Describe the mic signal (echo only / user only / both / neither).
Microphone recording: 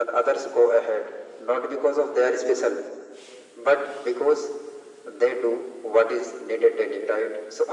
echo only